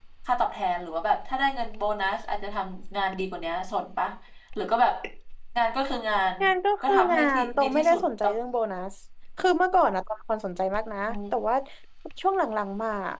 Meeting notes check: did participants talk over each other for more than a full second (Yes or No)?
Yes